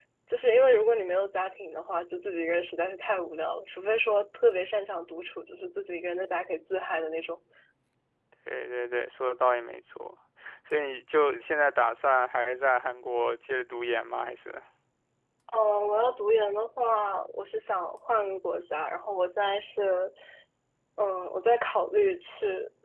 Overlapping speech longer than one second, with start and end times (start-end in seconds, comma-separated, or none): none